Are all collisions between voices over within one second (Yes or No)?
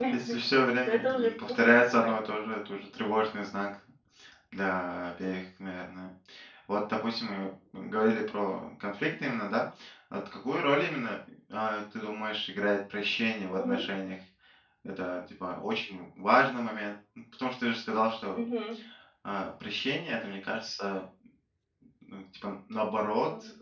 No